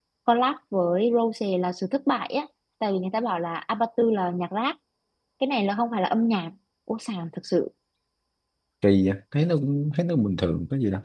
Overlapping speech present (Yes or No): No